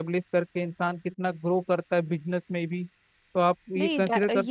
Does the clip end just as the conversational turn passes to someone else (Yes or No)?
Yes